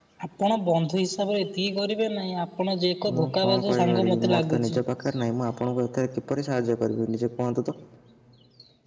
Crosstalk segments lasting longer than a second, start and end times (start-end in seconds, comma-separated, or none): 3.1-4.8